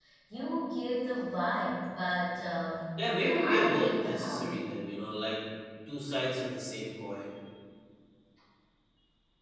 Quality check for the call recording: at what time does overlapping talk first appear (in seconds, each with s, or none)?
3.0 s